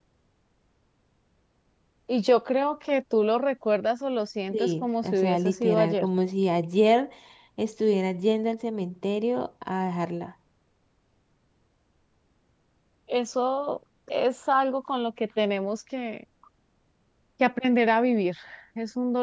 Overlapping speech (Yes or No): Yes